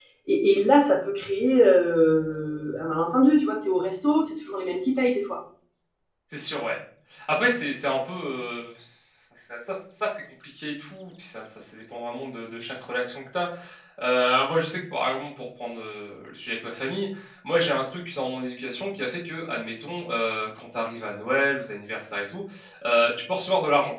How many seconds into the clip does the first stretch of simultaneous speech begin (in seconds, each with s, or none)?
none